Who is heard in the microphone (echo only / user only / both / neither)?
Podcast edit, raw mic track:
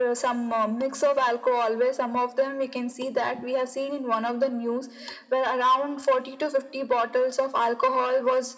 echo only